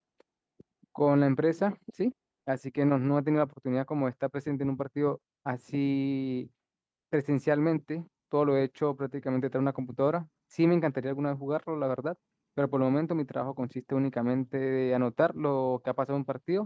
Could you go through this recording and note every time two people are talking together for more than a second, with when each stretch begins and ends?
none

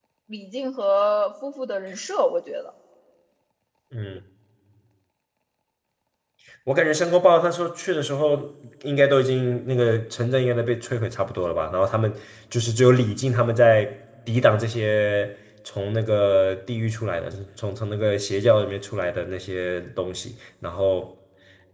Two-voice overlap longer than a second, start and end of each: none

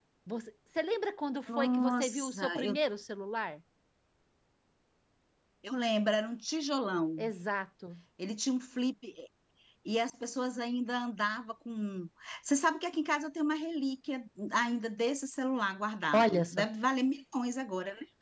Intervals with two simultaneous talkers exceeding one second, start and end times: 1.5-2.8

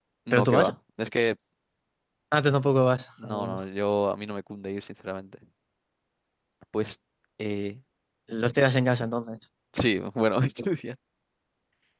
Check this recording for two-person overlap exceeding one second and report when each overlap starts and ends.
none

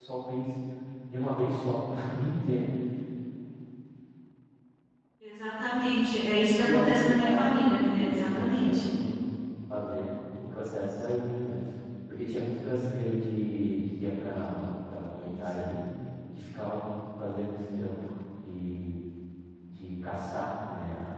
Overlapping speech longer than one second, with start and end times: 6.6-8.8

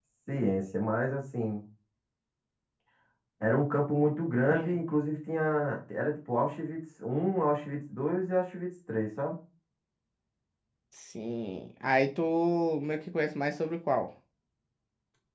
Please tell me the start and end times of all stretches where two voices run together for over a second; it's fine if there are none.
none

